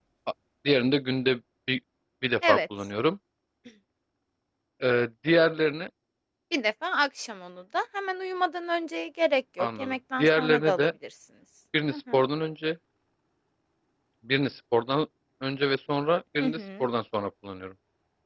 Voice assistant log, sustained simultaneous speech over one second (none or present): present